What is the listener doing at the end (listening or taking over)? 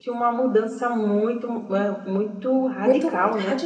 taking over